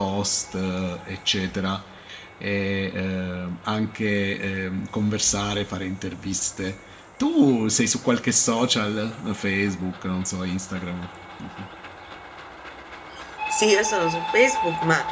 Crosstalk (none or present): none